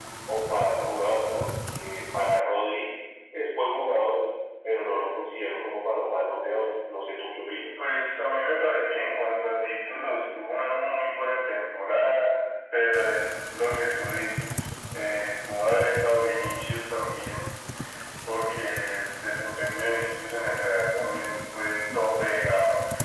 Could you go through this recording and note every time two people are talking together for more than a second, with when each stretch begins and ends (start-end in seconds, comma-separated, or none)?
none